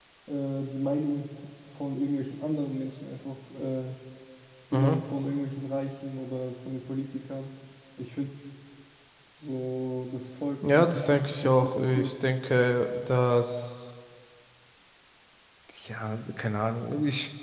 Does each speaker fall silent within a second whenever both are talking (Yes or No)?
No